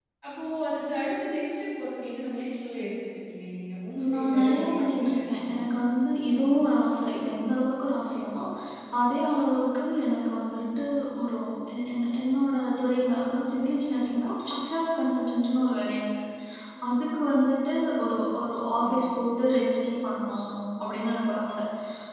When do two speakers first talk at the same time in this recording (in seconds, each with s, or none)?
4.0 s